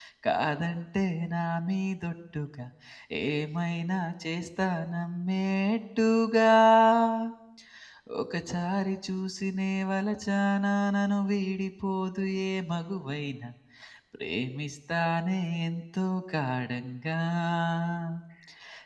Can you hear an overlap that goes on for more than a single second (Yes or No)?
No